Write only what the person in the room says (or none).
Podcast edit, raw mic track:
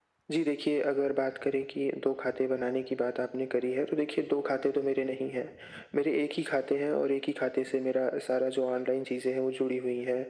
none